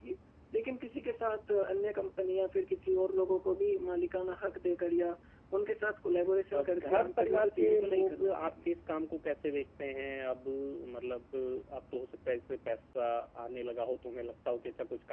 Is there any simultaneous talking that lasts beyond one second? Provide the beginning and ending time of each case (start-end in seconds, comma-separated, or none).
6.5-8.6